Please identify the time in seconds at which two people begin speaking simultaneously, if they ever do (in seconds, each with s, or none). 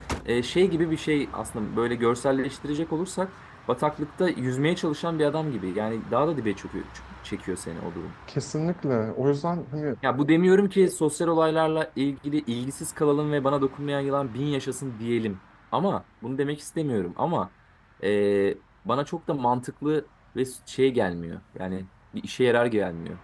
none